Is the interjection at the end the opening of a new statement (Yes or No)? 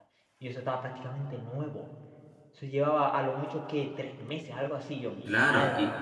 Yes